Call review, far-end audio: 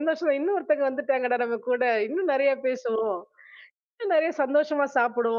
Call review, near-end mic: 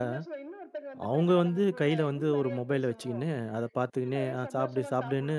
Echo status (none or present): present